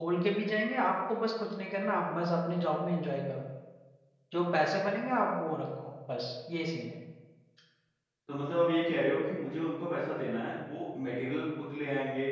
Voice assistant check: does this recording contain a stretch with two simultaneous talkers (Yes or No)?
No